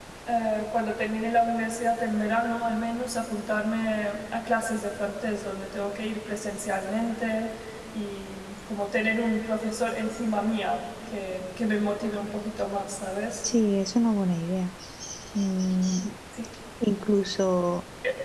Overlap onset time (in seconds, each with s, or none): none